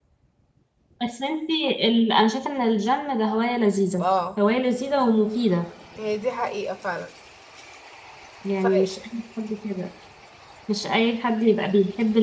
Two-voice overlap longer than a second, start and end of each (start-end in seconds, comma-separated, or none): none